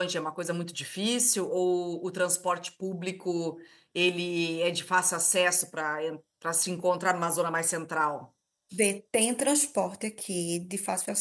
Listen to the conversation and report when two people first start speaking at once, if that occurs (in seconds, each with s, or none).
none